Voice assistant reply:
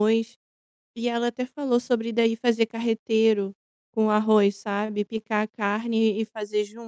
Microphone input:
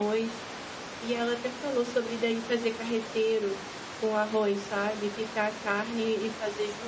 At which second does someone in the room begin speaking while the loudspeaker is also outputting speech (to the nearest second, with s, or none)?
none